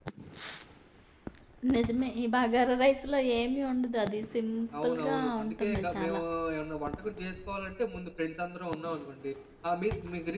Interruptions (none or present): present